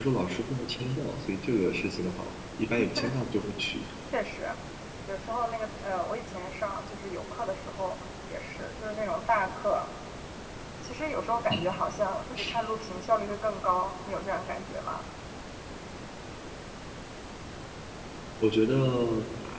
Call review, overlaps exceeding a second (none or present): none